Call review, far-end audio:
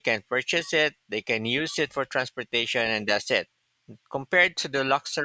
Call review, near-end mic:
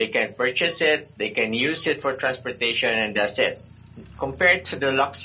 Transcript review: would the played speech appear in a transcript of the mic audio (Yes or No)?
Yes